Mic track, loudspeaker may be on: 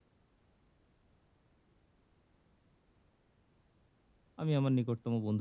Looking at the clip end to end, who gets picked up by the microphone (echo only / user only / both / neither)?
user only